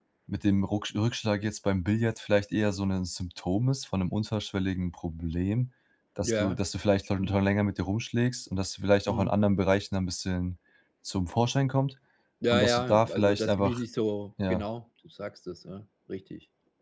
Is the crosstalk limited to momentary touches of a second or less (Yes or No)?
No